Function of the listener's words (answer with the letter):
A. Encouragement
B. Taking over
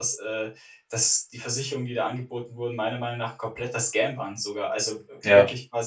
A